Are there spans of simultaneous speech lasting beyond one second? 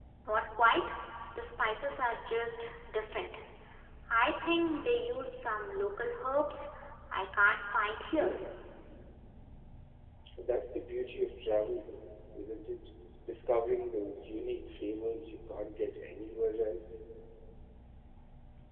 No

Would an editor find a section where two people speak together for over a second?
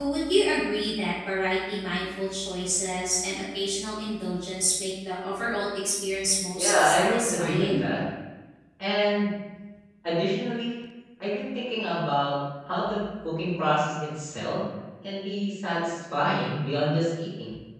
Yes, from 6.6 s

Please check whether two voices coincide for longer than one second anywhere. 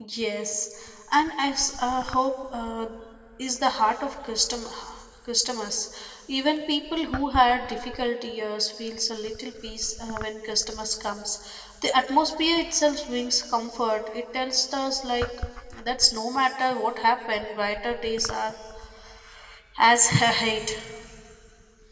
No

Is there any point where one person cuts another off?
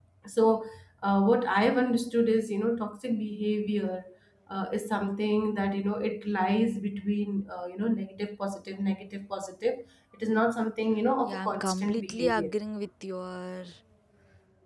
Yes, from 11.2 s

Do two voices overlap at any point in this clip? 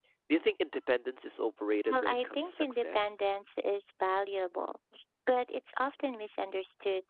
Yes, from 1.9 s

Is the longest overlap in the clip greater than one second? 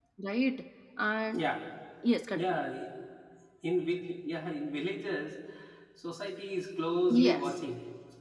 No

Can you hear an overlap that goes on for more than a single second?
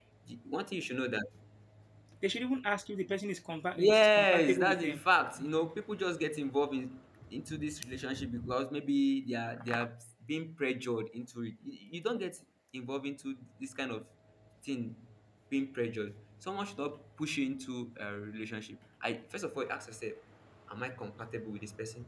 Yes, from 3.8 s

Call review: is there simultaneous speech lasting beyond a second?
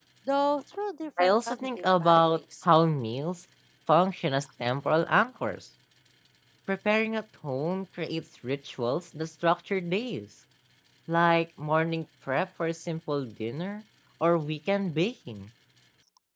Yes, from 1.2 s

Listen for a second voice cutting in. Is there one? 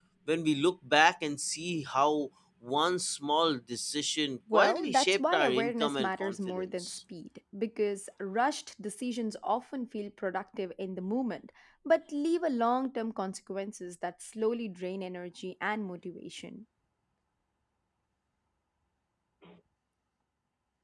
Yes, from 4.5 s

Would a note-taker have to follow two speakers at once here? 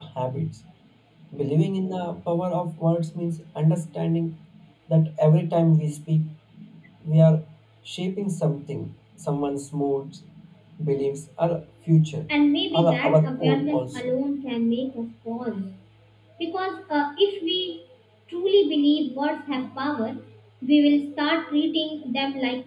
Yes, from 12.7 s

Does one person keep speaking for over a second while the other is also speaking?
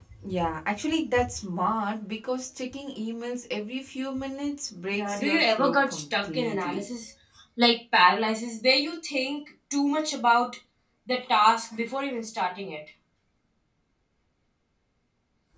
Yes, from 4.9 s

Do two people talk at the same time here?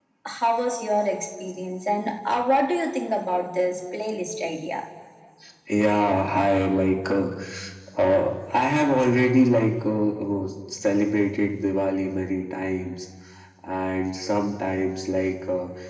No

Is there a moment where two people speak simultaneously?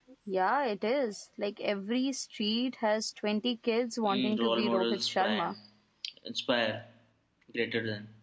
Yes, from 4.0 s

